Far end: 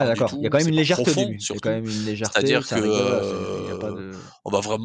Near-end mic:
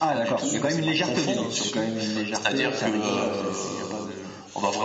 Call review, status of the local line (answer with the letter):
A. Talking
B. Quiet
A